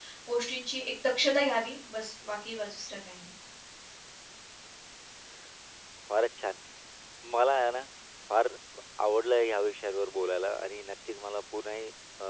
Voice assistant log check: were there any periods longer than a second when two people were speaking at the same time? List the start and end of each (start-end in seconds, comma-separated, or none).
none